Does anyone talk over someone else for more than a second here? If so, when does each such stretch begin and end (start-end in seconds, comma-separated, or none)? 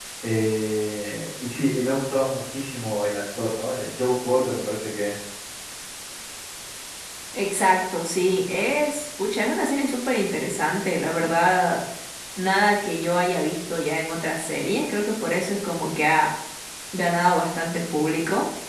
none